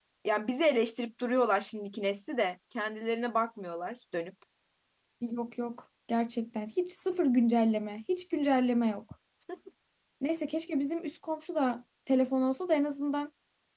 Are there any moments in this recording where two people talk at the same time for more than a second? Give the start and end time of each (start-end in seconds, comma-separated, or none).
none